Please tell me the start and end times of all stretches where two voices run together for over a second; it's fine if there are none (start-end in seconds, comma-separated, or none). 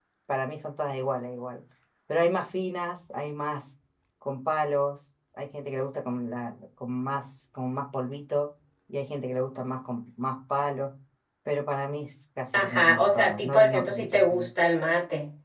12.5-14.5